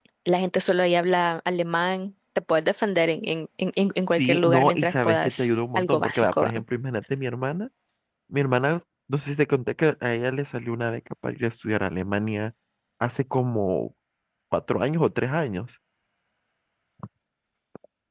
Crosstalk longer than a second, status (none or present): present